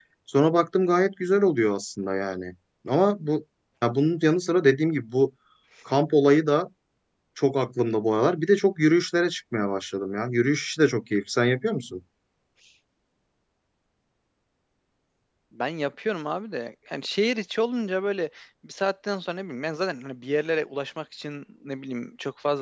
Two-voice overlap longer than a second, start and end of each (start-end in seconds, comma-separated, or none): none